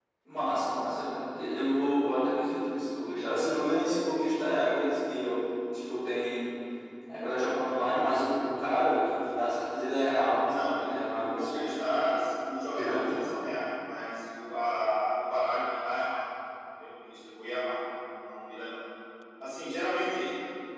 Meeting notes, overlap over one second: present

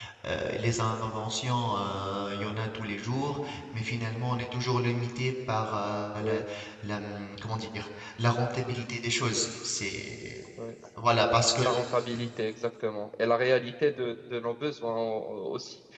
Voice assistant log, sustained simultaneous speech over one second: none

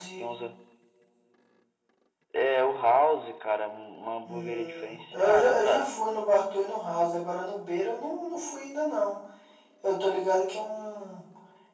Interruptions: present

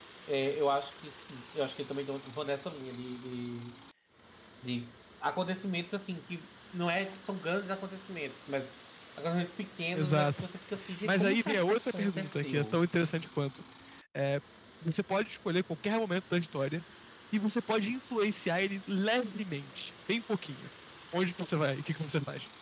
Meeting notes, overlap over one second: present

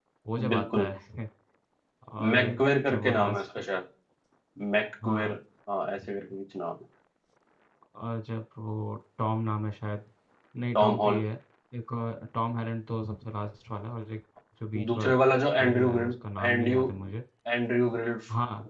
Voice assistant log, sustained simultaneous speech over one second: present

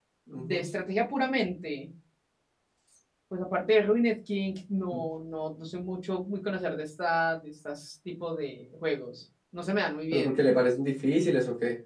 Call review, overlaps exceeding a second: none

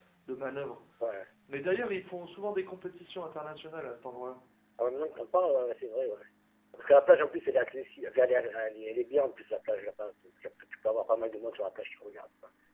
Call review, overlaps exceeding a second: none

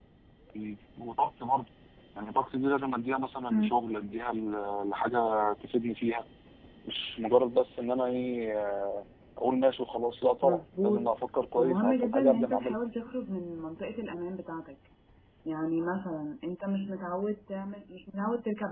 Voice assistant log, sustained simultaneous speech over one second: present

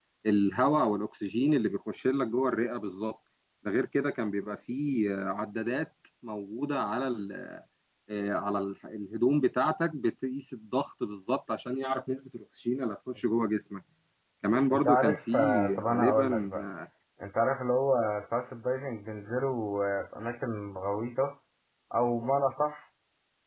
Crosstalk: present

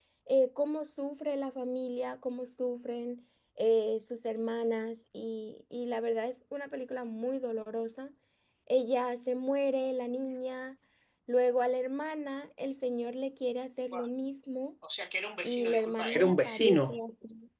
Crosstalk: present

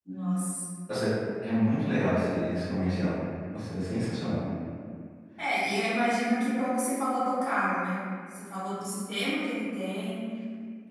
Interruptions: none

